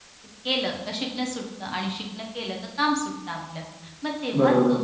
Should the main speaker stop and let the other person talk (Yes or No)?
No